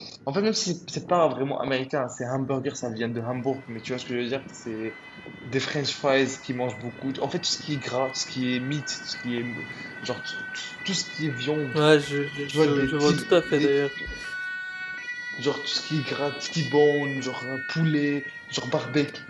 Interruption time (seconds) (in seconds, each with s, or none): 12.5 s